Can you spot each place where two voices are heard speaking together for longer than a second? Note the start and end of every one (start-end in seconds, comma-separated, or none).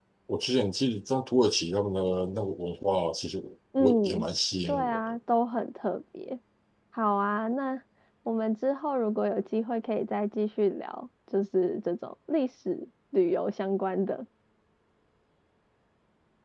none